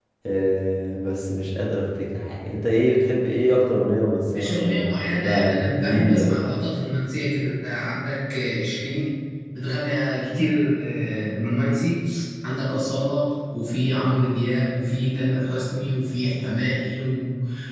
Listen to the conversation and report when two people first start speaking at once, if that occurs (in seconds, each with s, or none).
4.3 s